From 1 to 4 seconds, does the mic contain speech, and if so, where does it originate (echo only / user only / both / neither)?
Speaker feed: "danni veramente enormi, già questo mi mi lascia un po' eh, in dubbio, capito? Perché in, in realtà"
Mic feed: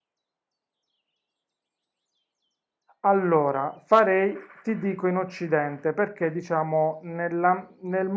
user only